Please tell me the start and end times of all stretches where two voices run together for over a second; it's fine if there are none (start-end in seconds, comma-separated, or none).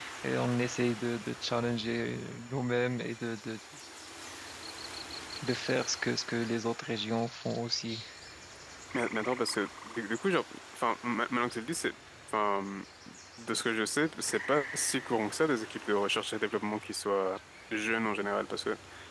none